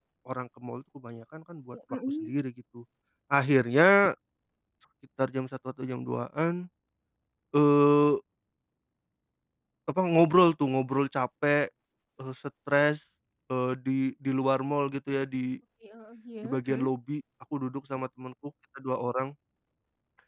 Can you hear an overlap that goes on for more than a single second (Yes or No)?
No